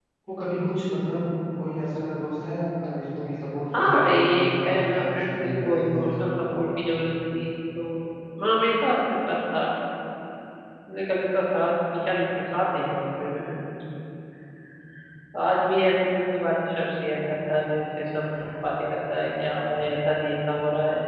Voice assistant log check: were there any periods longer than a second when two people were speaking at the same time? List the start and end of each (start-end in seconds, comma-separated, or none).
3.8-6.2